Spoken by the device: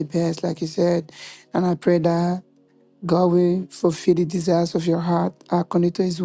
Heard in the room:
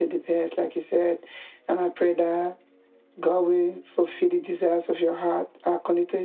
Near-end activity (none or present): none